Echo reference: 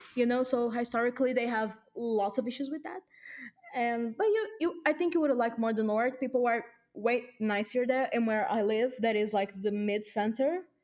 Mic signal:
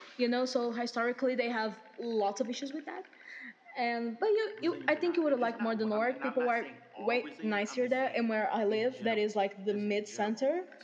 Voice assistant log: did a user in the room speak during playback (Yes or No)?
Yes